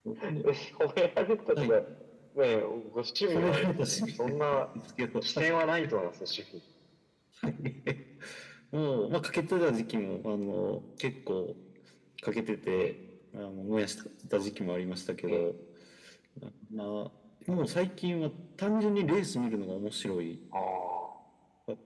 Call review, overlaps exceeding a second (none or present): present